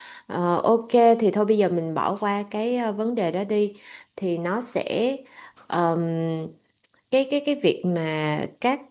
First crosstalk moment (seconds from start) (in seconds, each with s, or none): none